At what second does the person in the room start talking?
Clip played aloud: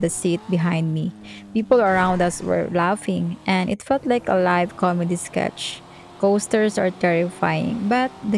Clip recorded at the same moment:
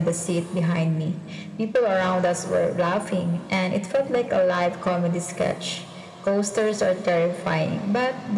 none

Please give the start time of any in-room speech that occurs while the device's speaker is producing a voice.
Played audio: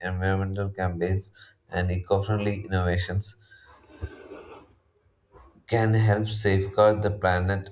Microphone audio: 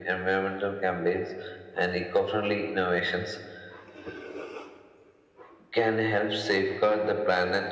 none

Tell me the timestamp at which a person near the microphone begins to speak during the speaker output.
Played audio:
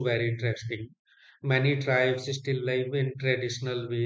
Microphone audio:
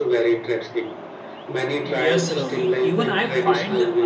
1.8 s

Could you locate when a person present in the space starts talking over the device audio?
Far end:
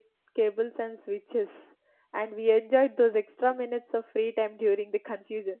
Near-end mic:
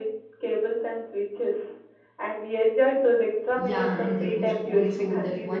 3.5 s

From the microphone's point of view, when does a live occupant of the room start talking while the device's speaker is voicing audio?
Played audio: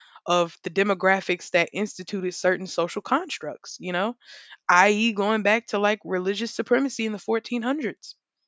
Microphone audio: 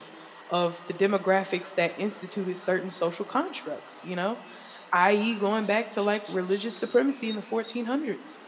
none

